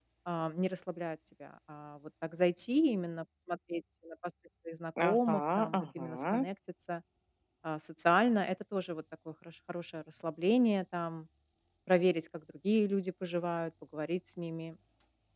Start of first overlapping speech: 5.0 s

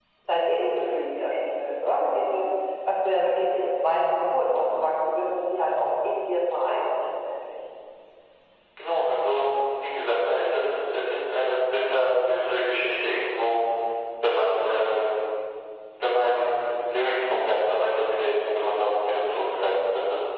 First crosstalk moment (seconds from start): none

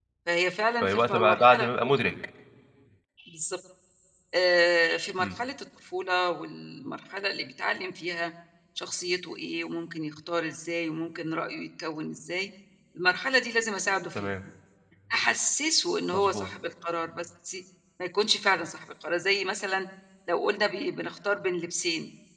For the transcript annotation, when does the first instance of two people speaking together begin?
0.8 s

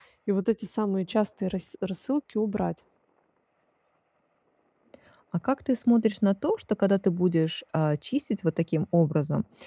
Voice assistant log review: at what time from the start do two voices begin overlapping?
none

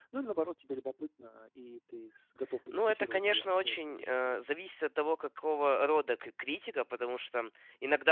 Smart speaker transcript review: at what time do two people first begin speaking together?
2.7 s

